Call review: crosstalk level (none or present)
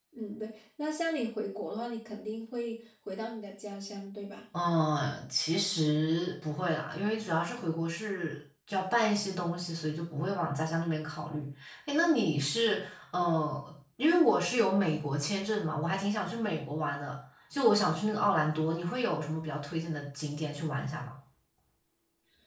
none